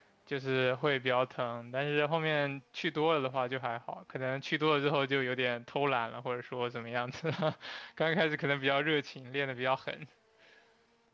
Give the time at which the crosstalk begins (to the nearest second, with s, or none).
none